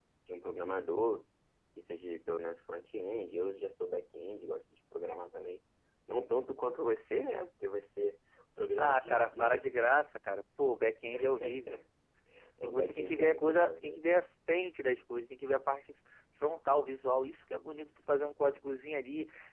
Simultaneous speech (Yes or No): Yes